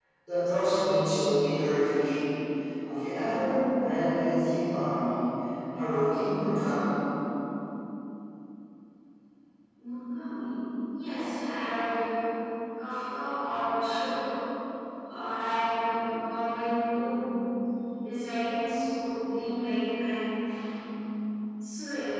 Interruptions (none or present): none